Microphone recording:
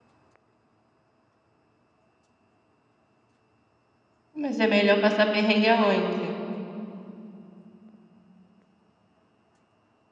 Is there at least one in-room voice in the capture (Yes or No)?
Yes